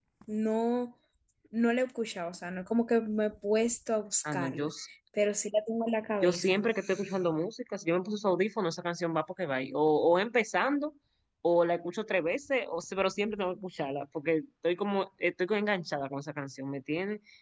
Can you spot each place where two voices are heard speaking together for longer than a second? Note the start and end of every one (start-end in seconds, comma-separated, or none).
none